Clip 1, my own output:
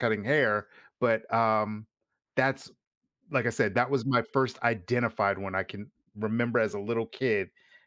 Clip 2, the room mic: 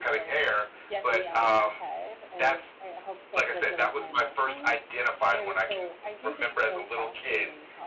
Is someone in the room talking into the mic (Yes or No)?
Yes